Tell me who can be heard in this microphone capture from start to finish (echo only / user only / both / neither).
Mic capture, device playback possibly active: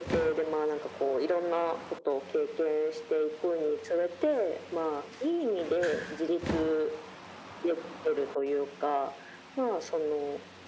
echo only